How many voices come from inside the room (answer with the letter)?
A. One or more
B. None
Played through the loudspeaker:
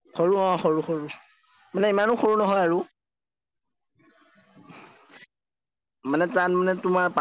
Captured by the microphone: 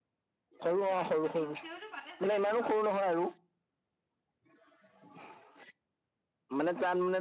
A